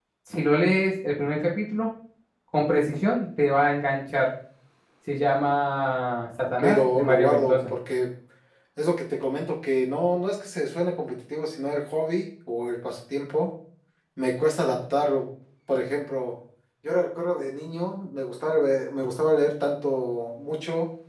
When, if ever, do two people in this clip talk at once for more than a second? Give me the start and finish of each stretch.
6.4-7.7

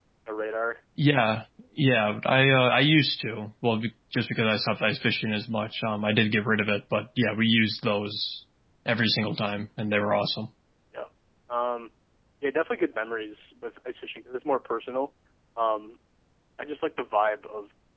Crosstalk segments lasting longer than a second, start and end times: none

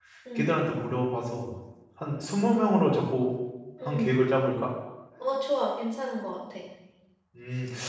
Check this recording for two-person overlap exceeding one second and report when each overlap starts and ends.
none

